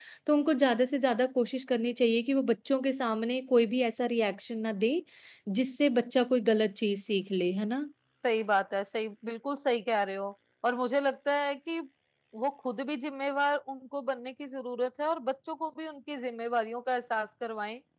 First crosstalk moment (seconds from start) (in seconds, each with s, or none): none